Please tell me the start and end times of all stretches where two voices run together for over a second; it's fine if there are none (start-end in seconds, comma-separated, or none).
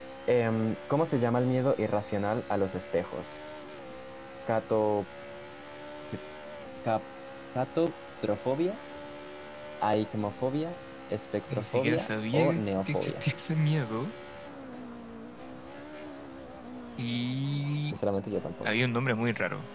11.5-13.2